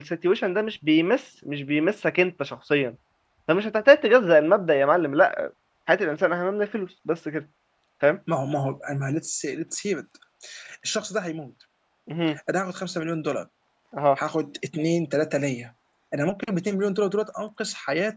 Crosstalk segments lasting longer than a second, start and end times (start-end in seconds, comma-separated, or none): none